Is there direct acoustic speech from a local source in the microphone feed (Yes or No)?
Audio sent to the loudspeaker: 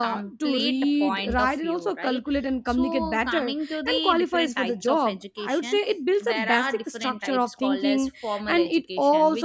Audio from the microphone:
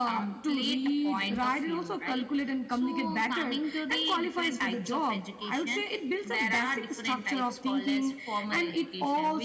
No